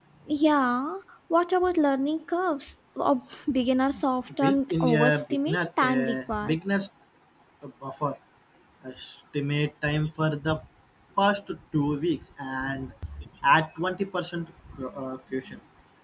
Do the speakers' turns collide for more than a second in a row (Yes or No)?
Yes